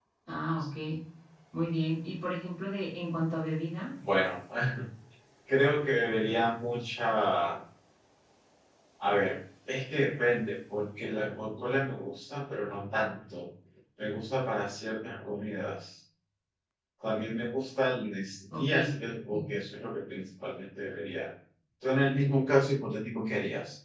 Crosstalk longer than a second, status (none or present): none